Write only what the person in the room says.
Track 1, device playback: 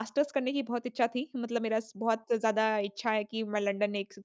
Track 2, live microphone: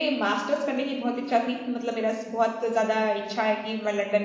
none

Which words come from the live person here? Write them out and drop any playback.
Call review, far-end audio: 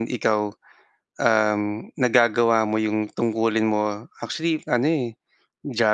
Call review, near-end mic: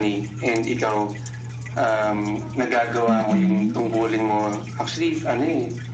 Mm.

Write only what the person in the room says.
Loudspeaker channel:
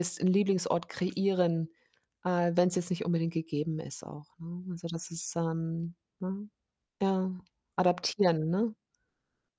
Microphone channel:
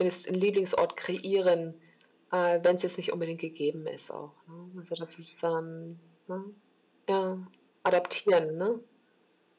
none

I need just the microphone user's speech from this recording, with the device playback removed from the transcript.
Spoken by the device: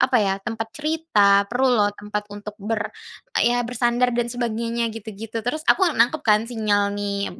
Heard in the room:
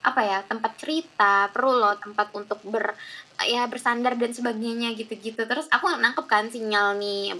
none

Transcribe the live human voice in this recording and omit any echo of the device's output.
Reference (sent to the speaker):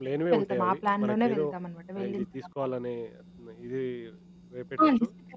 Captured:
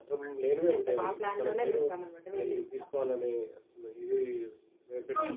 none

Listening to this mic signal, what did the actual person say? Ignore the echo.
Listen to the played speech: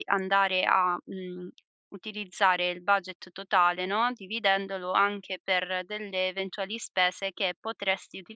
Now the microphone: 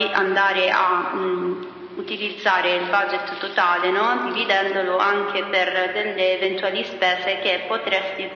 none

